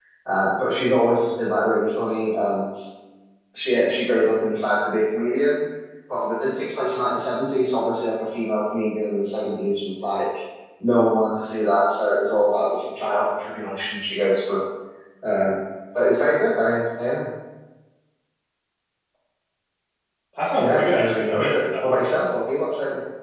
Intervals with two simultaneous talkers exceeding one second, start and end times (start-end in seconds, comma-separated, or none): 20.6-22.0